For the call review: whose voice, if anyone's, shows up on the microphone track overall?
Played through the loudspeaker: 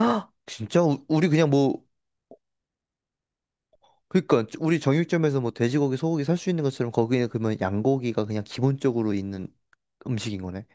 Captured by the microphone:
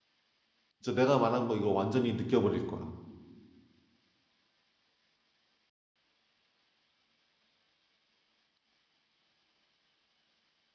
user only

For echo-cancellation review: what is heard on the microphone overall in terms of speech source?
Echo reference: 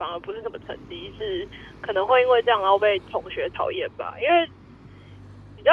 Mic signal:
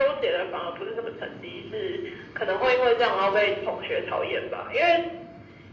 echo only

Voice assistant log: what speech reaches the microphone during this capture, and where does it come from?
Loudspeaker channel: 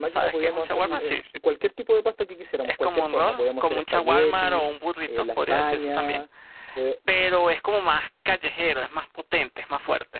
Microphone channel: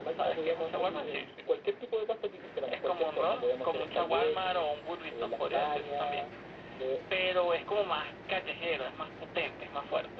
echo only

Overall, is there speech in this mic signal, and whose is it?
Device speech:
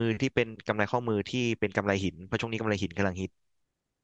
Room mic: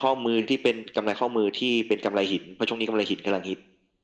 echo only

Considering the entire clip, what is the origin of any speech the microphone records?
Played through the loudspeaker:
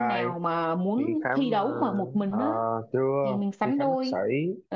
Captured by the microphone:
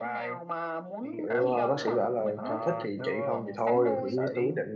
both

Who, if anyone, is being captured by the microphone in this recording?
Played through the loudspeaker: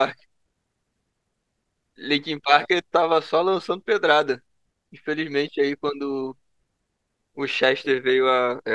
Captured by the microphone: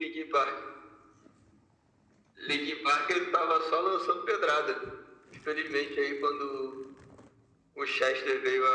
echo only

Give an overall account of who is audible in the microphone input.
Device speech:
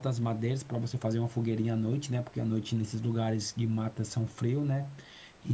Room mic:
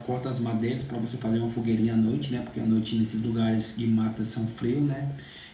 echo only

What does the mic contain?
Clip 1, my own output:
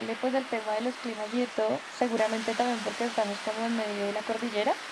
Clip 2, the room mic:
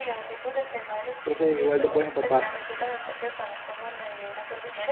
both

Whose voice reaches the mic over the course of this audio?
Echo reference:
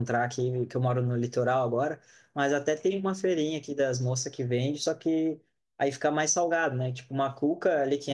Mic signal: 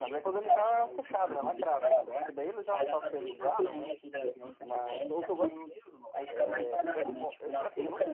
both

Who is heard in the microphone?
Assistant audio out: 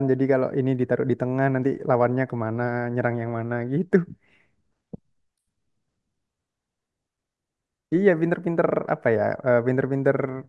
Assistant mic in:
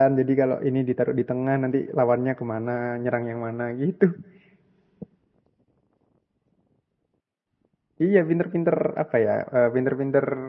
echo only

